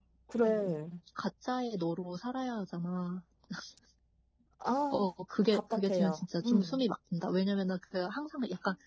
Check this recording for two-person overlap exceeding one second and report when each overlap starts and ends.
5.5-6.8

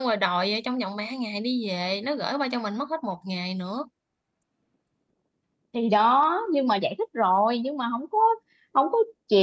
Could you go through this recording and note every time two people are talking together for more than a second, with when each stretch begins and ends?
none

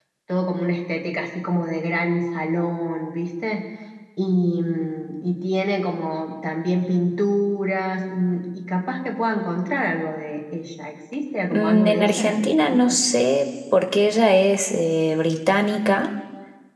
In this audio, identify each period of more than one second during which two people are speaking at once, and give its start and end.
11.5-13.0

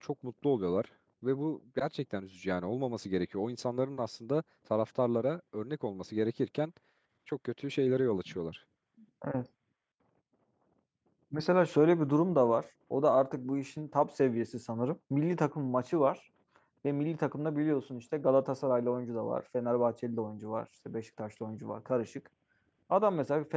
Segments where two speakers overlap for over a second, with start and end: none

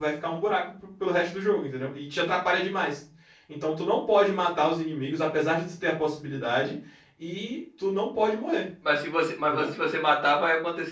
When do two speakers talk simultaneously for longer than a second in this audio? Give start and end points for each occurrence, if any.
none

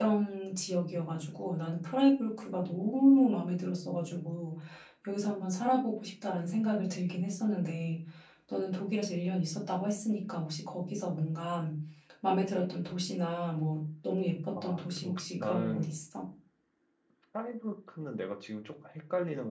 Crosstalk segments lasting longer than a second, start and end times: 14.6-16.0

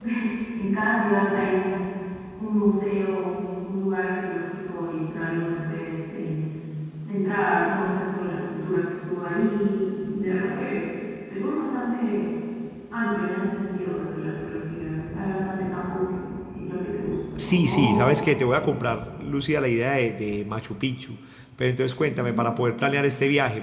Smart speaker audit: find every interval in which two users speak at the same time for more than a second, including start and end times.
17.4-18.7

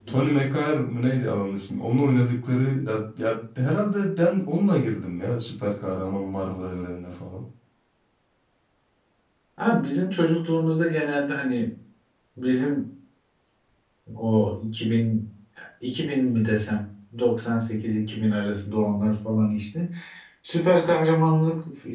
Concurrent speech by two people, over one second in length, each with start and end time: none

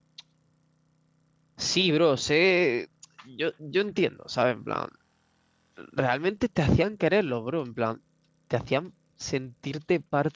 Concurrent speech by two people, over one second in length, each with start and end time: none

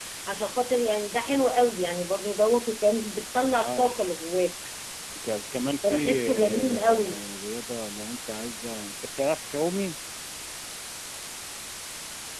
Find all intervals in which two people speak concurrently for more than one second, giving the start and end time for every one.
5.8-7.2

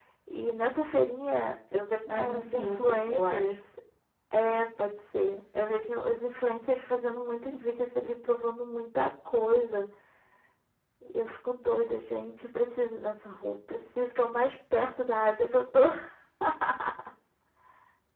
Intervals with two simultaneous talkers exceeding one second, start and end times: 2.1-3.5

